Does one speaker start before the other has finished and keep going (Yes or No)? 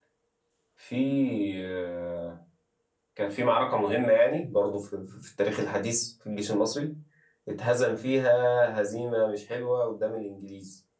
No